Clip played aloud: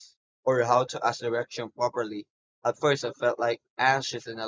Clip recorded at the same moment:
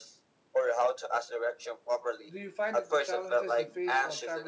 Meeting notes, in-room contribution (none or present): present